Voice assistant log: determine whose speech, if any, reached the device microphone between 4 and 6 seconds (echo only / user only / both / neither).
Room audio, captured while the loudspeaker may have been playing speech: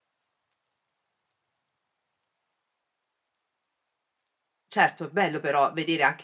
user only